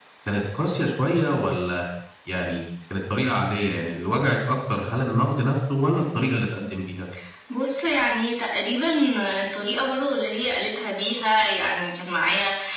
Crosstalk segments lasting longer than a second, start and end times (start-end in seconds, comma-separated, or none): none